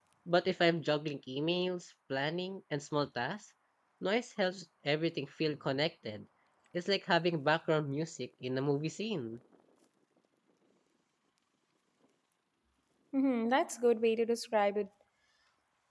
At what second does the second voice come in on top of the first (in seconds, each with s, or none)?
none